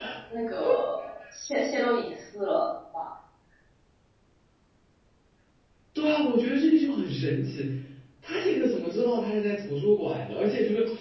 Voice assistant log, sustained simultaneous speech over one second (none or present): none